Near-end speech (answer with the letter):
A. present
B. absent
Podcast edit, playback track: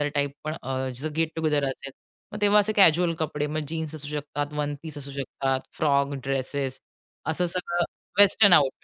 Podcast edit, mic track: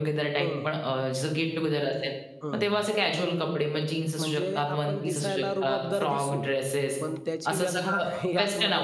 A